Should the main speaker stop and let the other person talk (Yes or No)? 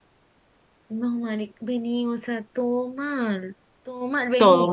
No